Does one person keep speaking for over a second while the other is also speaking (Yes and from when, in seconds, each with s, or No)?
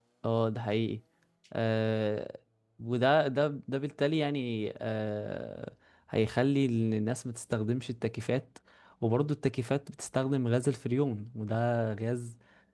No